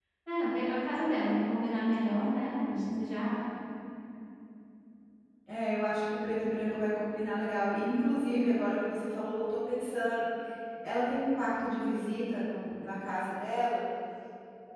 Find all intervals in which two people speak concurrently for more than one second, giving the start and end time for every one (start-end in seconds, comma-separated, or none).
none